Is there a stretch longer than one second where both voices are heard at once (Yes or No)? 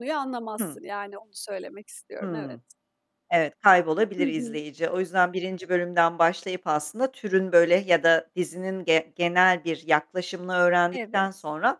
No